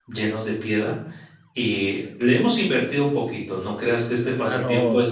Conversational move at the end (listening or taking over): taking over